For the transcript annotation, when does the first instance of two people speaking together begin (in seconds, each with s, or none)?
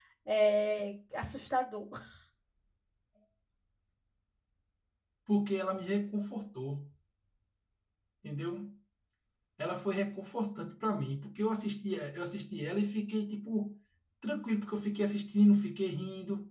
none